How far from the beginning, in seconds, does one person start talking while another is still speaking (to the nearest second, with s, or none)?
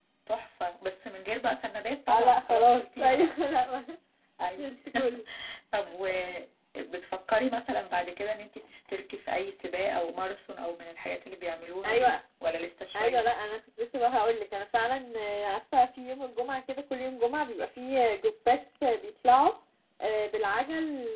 2 s